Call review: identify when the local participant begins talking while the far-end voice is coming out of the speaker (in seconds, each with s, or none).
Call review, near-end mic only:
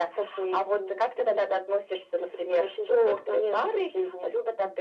none